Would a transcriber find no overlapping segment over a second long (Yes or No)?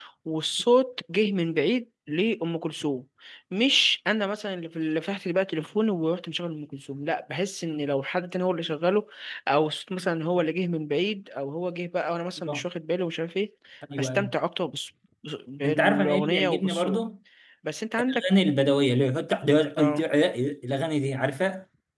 No